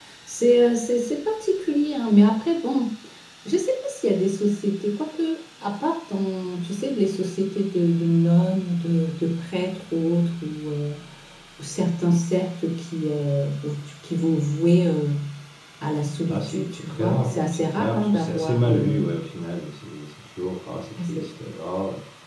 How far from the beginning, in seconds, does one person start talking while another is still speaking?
16.3 s

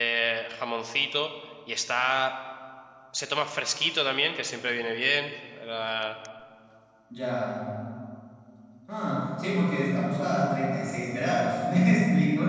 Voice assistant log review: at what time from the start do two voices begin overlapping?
none

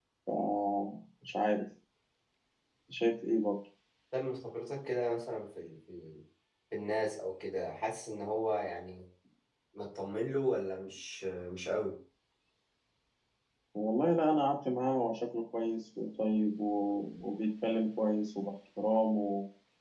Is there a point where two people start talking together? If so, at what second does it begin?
none

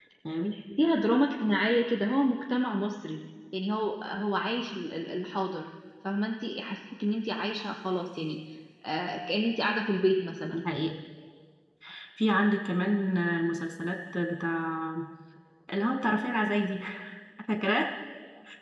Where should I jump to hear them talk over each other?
none

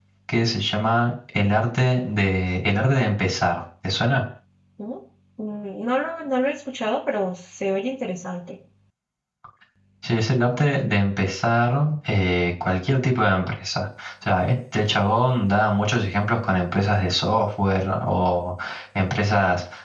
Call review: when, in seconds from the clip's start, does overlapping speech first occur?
none

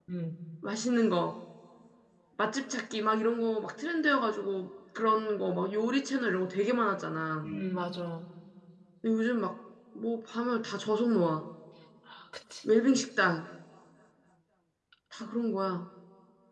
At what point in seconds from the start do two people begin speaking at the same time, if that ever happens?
none

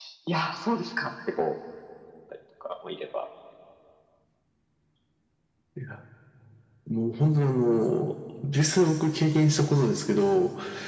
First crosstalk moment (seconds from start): none

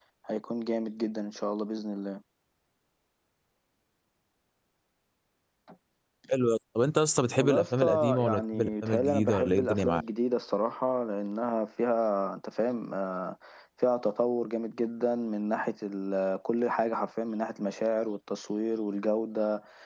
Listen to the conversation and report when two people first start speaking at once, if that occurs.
7.4 s

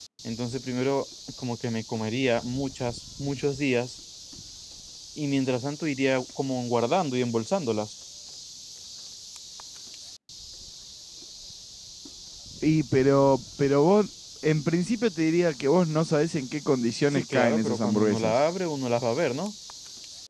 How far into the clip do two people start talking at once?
17.1 s

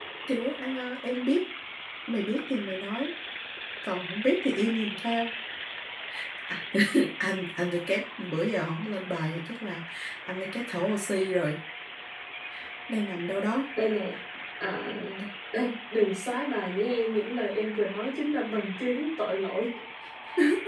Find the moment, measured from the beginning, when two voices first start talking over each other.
none

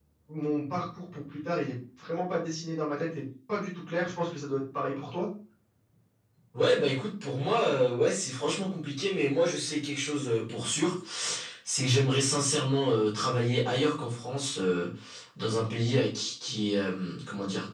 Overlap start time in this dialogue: none

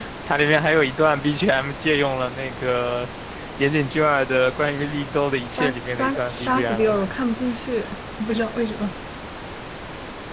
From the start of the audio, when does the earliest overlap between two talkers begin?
5.6 s

